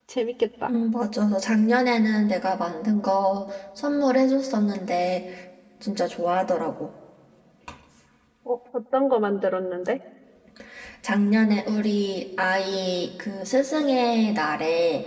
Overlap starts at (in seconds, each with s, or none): none